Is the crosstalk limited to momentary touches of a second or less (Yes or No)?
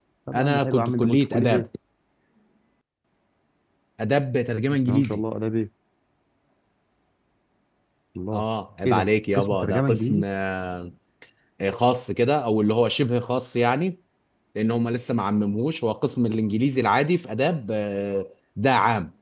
No